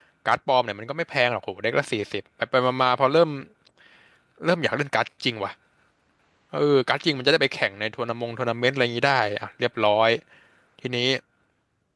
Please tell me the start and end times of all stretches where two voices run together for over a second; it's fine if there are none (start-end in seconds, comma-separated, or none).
none